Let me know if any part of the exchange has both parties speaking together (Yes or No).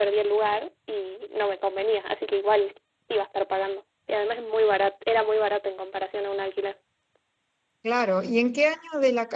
No